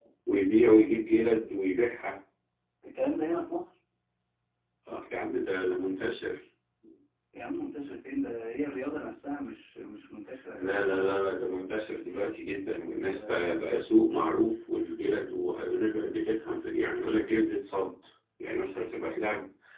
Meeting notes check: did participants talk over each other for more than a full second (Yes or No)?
No